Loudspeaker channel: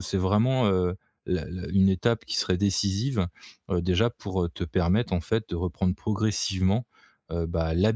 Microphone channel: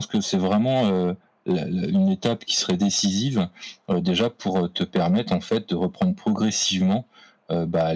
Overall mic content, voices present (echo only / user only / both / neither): echo only